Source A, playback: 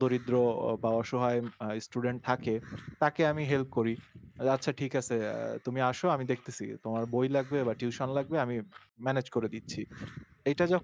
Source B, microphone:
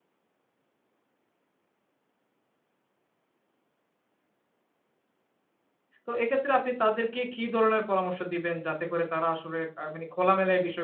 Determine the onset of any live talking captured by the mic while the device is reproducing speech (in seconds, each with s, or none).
6.1 s